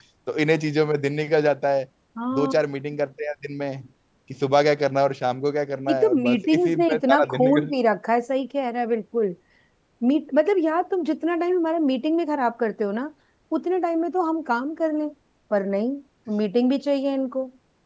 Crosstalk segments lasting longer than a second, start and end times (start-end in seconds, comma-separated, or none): 5.9-7.7